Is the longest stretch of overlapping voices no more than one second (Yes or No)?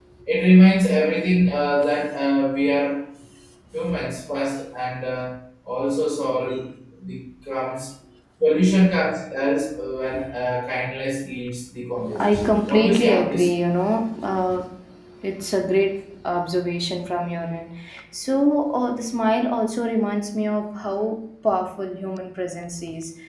No